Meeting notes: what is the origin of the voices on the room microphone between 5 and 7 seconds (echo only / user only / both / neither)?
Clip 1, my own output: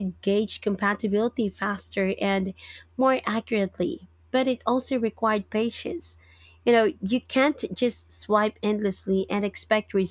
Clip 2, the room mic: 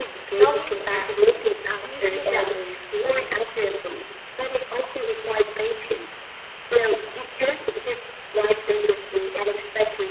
echo only